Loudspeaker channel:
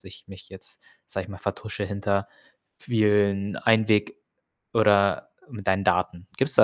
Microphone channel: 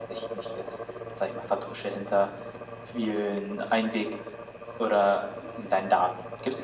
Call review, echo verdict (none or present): present